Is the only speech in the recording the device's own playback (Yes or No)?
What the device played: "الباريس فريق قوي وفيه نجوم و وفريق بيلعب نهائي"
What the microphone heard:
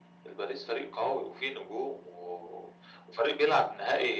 Yes